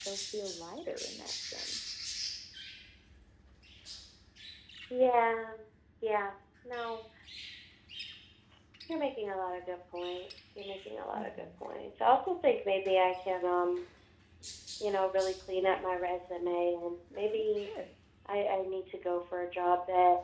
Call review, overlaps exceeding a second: none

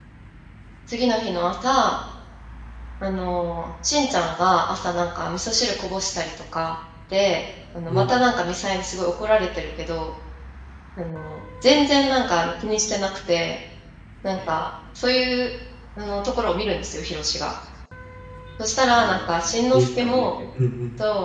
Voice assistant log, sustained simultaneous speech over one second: present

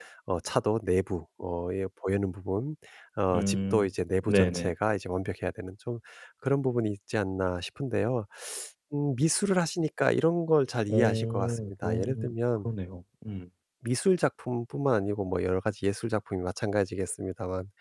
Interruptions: present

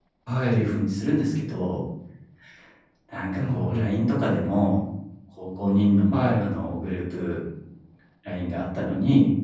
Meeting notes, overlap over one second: none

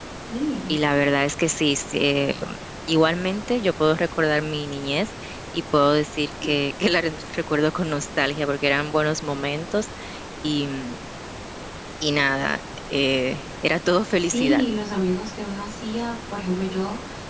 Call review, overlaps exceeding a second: none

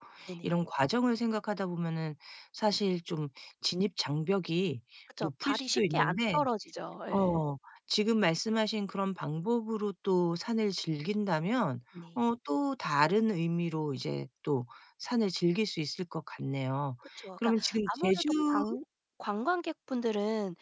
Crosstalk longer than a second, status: present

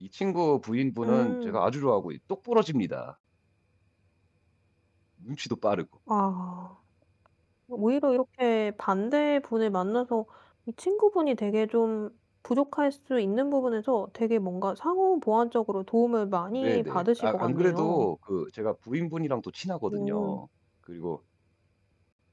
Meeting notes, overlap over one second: present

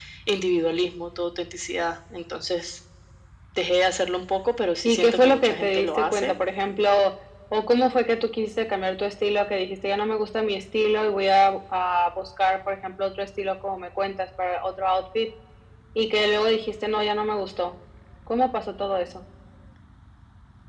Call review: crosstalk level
present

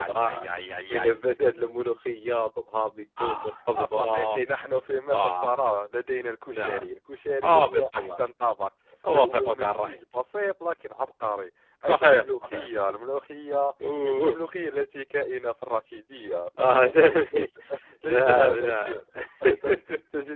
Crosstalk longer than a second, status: present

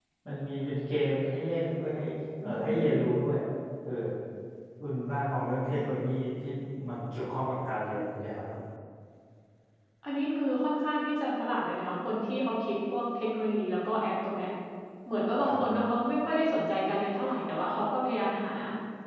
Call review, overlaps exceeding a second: none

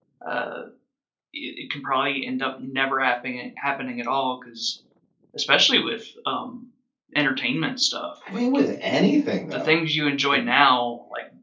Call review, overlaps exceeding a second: none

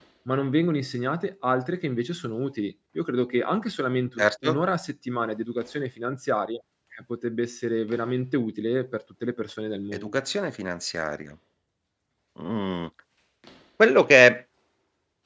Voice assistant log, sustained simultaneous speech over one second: none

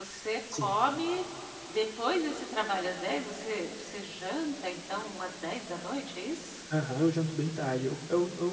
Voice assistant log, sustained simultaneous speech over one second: none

